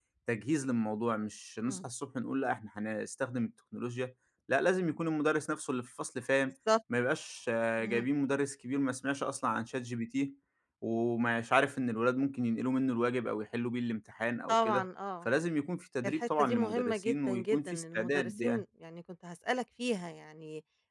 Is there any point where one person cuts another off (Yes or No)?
Yes